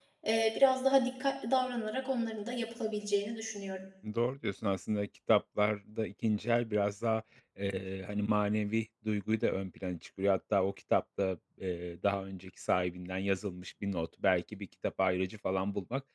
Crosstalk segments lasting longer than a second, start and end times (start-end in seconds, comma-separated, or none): none